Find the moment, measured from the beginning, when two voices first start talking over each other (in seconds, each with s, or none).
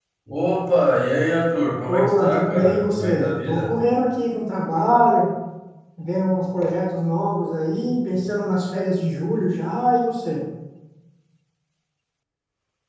1.9 s